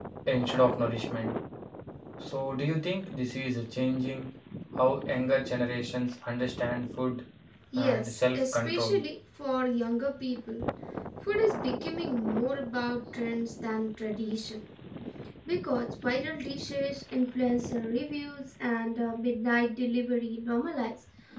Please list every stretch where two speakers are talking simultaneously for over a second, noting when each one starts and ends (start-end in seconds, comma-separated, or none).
7.8-9.0